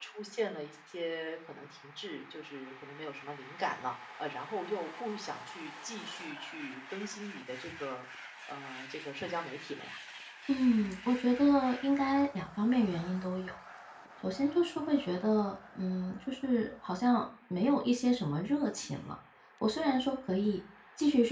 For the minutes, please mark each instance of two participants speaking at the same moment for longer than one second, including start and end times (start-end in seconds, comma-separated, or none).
none